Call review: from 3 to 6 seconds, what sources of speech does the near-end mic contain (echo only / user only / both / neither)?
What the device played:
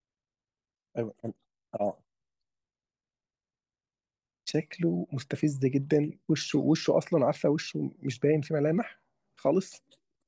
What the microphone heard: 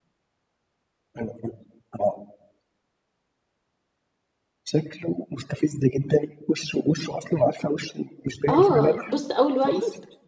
echo only